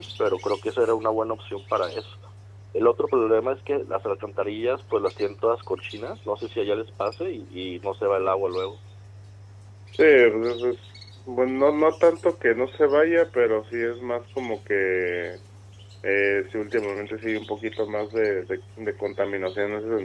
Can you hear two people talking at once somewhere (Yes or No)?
No